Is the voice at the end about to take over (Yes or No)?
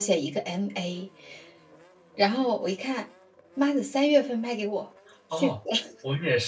Yes